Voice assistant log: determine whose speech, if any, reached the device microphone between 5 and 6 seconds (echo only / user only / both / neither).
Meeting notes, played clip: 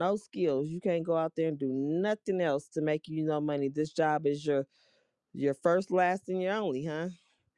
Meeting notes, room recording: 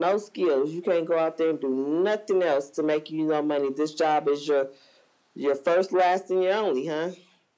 echo only